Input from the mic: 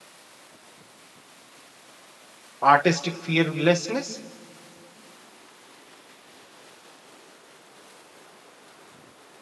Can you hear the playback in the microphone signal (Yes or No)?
No